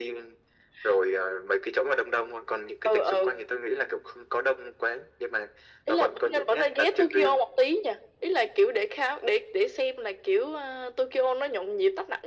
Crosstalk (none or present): present